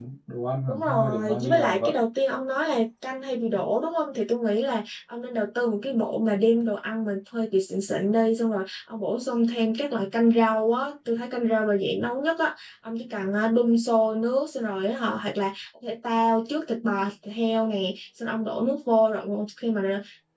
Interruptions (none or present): present